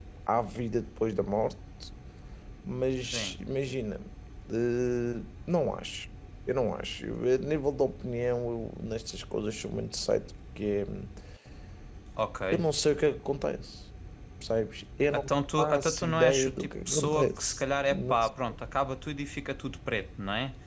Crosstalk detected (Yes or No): Yes